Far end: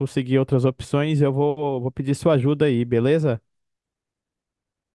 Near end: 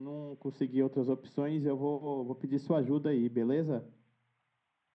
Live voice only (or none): none